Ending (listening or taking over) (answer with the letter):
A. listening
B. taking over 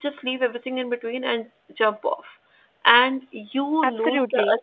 A